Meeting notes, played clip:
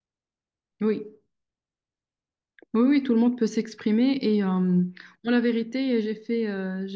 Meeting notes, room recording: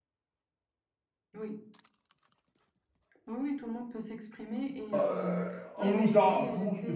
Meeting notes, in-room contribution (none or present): present